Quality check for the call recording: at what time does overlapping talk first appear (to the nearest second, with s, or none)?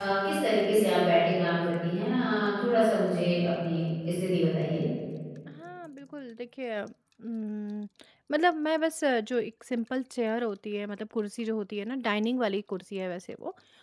none